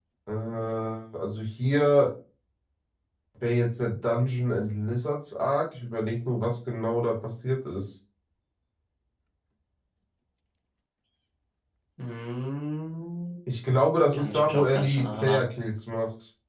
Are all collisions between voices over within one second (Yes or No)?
No